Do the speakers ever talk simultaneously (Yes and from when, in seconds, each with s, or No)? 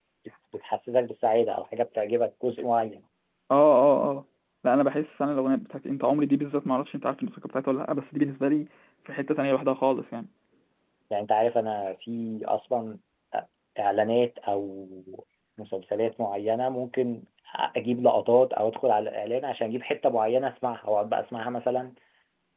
No